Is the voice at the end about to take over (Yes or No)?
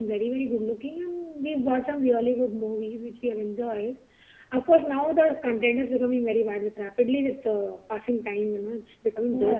Yes